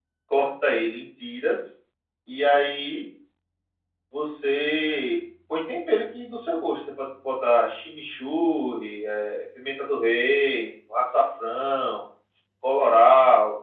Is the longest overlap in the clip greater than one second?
No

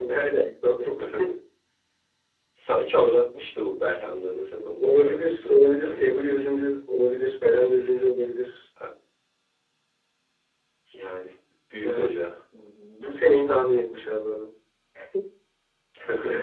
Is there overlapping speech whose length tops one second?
Yes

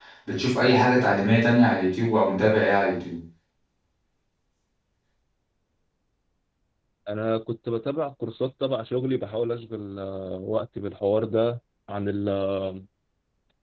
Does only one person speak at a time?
Yes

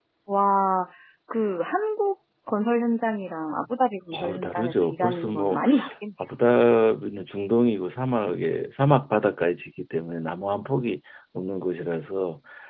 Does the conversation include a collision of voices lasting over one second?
Yes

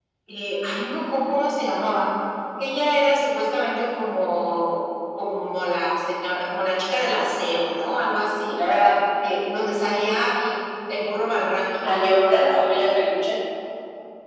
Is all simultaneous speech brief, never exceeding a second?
Yes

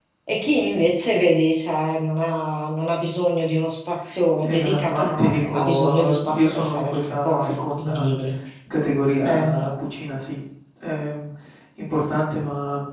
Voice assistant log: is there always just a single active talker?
No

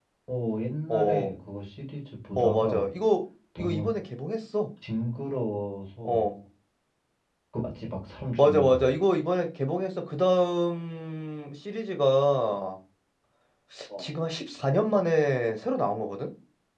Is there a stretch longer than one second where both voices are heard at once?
No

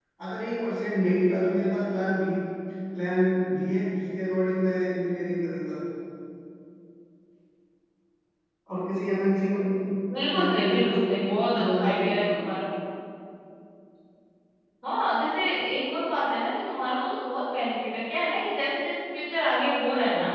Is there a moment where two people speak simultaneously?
Yes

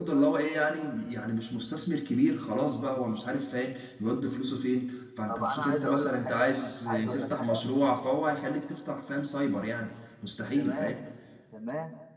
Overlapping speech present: Yes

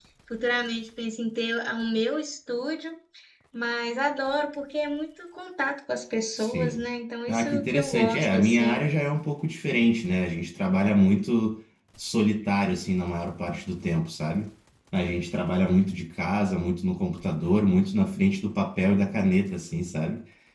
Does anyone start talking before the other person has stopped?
Yes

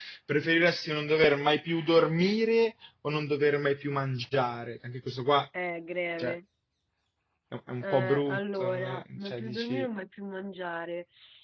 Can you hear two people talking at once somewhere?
Yes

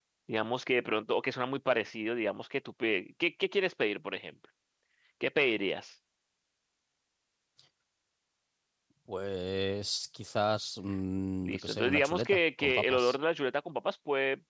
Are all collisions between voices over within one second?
No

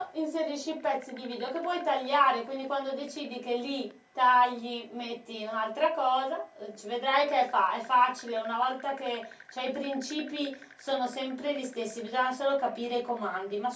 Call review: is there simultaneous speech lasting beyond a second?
No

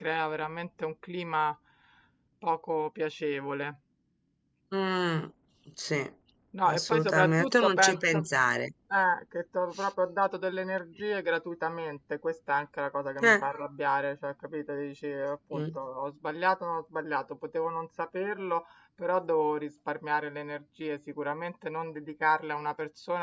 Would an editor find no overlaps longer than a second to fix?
No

